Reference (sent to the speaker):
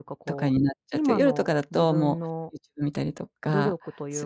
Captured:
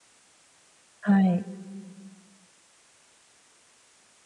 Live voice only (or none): はい。